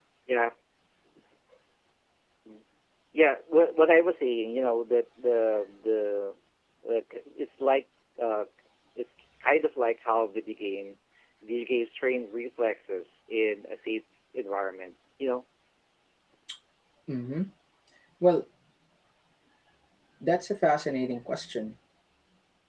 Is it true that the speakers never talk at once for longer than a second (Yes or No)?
Yes